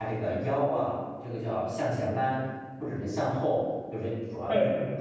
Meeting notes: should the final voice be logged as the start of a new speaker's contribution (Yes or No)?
No